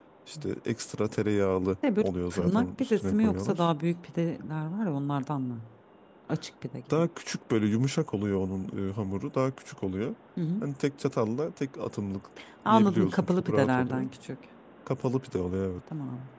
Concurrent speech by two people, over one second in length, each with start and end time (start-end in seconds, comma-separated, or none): 2.0-3.7, 12.7-14.1